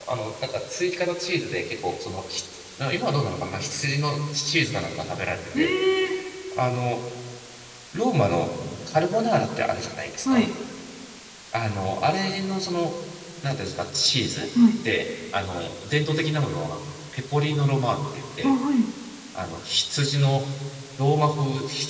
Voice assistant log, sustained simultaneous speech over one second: none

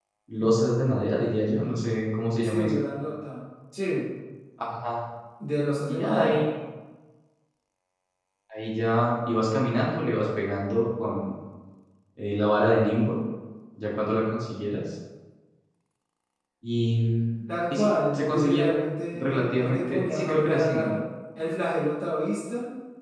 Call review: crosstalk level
present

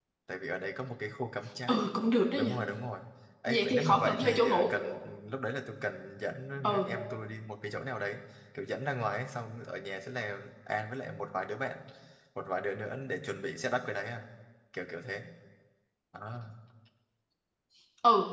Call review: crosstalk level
present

